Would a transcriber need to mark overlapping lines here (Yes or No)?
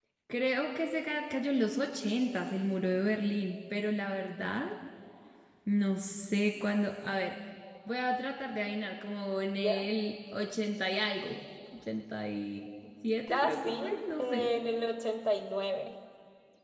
Yes